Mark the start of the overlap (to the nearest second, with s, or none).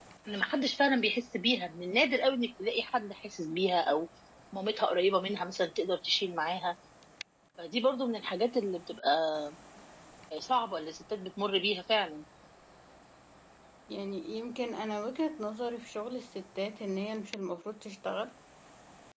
none